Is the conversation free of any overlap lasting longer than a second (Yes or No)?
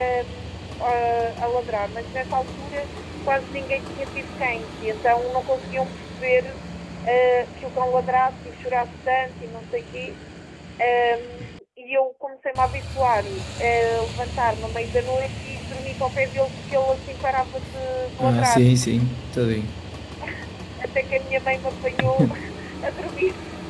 Yes